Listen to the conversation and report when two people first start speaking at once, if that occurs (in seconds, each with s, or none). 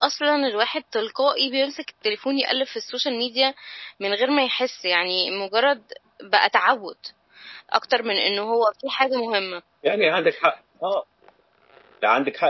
none